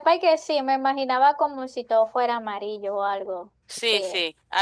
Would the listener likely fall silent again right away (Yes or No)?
No